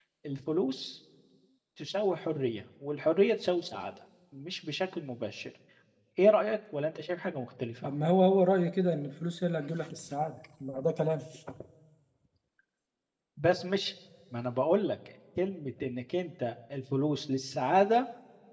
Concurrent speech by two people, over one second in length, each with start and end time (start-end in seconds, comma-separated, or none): none